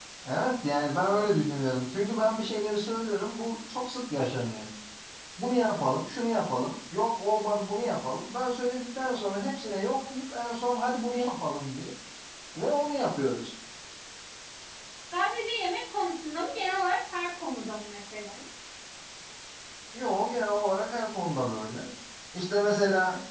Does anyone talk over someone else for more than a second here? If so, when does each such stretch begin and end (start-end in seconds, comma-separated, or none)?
none